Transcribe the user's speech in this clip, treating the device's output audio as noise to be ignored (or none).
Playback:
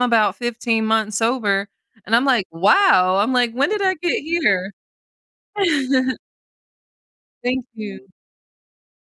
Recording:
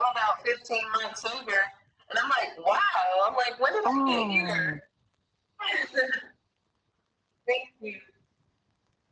Oh.